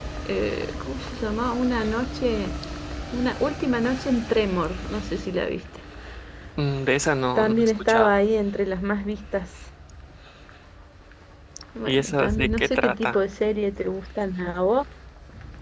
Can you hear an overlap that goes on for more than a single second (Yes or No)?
Yes